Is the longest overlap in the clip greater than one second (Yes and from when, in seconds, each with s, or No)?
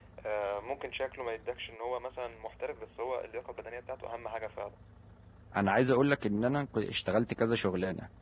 No